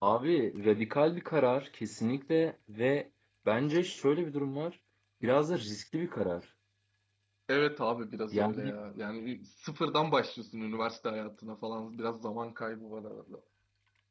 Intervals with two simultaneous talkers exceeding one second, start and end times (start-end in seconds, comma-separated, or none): none